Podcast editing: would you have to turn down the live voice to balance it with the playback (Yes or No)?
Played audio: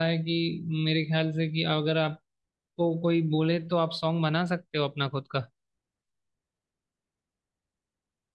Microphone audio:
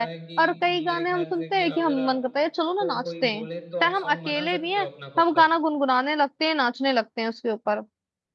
Yes